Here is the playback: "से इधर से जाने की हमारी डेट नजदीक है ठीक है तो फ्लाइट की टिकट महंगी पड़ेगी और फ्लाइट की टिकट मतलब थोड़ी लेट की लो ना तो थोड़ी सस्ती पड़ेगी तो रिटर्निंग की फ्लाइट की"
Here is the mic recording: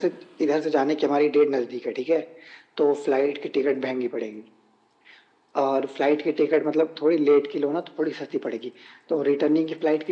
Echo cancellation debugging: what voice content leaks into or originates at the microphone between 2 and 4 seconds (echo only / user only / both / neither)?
echo only